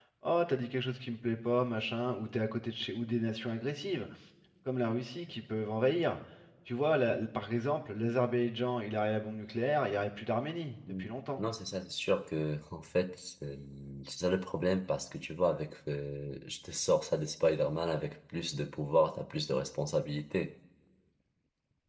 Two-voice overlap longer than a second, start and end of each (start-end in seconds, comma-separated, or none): none